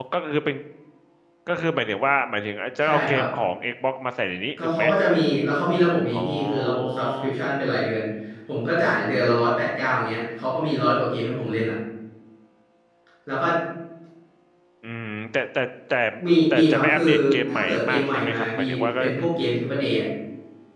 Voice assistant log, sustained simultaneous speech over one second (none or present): present